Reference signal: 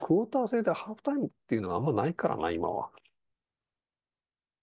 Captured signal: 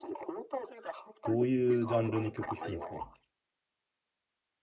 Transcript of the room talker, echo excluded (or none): どういうジャンルの曲弾くんですか